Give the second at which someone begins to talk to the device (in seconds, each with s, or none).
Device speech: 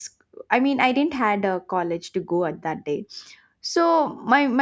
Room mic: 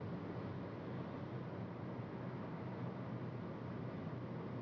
none